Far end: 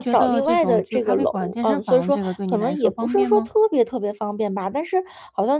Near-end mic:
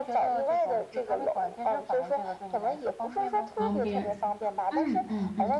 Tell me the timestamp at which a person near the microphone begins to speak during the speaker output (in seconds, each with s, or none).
3.5 s